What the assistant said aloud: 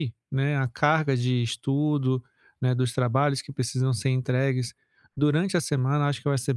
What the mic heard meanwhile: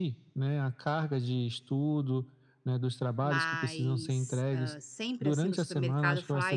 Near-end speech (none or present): present